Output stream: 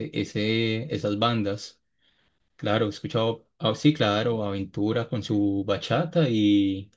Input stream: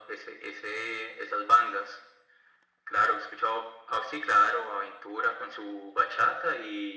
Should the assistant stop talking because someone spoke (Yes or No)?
No